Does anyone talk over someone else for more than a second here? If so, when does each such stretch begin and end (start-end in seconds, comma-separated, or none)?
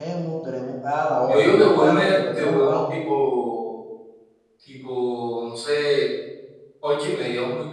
1.2-3.0